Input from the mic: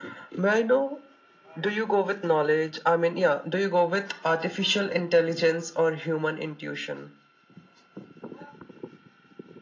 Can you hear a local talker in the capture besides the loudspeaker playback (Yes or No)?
No